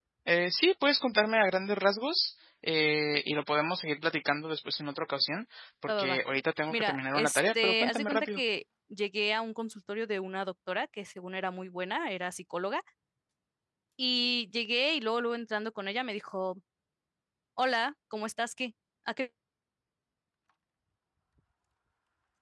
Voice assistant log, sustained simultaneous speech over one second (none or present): present